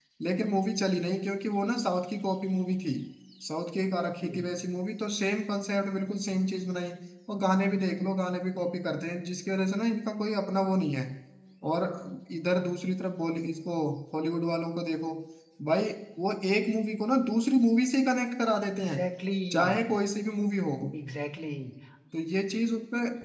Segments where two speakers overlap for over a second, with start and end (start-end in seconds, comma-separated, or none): none